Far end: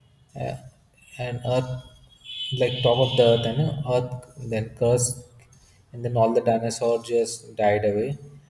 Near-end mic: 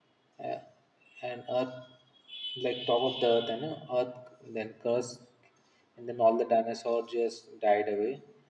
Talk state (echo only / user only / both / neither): echo only